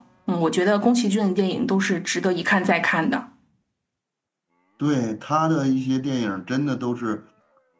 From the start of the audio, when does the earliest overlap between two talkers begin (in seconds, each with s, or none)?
none